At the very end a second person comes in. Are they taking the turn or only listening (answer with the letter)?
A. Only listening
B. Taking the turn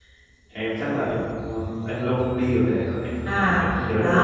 B